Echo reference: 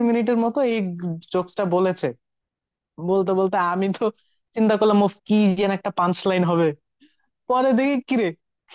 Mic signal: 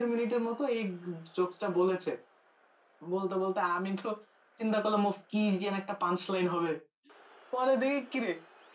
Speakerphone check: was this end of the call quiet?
Yes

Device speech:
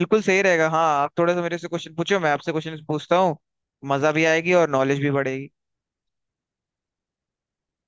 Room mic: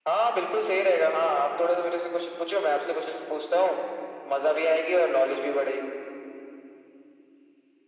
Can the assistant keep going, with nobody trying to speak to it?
Yes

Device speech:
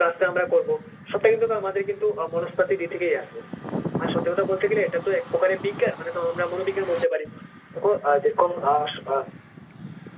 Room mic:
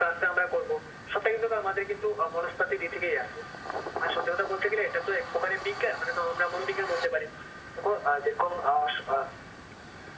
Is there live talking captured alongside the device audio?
No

